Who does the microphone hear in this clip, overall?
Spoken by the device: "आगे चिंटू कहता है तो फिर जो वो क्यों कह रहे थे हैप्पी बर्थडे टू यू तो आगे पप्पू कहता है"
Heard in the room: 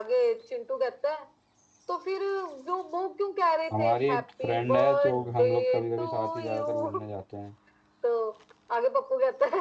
both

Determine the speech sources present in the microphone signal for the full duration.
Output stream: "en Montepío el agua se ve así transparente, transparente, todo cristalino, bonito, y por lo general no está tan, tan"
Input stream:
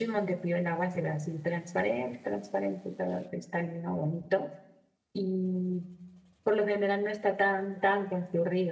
echo only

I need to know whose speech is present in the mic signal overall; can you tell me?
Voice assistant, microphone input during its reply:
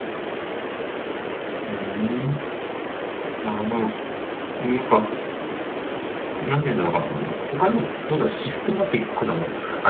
user only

